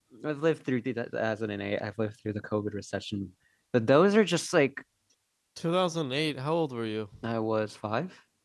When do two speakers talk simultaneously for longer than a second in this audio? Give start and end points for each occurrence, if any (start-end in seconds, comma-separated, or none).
none